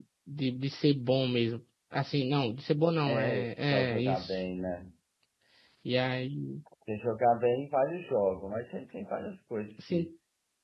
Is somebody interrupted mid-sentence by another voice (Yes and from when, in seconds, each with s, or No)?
Yes, from 3.1 s